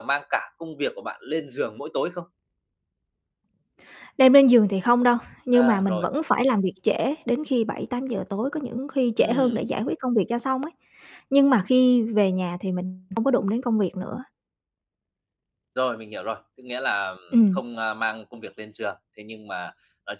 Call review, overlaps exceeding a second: none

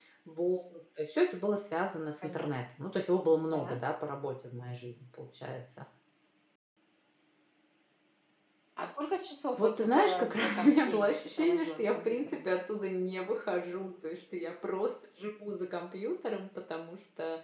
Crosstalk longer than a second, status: present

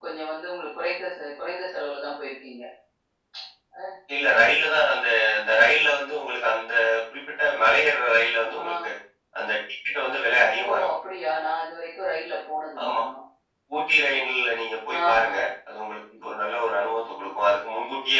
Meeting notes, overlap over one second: none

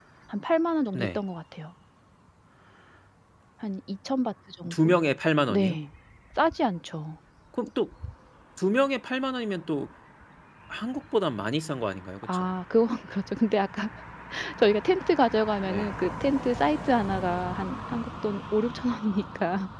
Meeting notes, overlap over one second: none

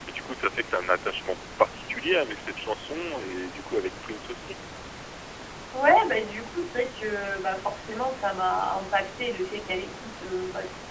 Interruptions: none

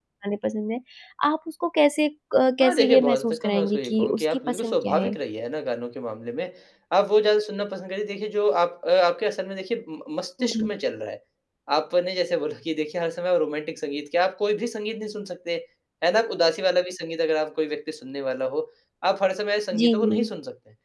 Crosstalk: present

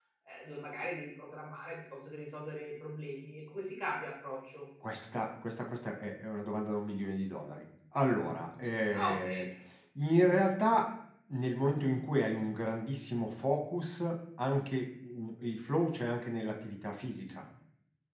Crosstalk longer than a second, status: none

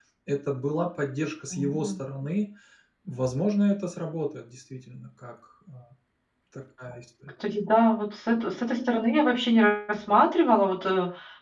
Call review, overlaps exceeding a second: none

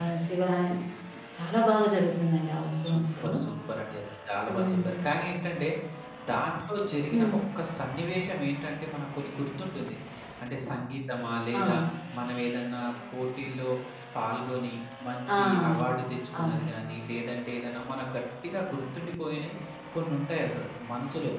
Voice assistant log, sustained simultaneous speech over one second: none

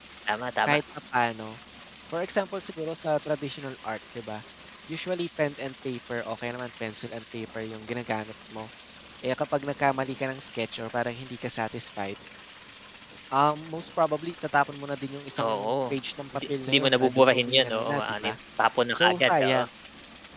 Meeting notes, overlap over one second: present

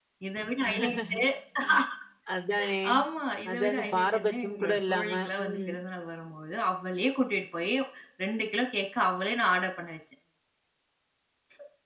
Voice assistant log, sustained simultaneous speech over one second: present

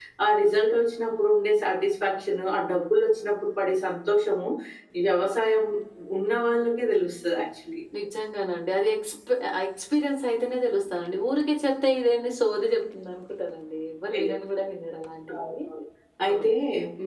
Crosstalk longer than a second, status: none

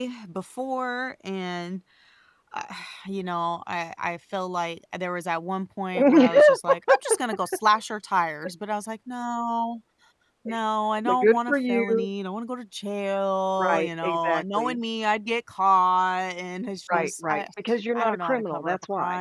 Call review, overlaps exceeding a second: present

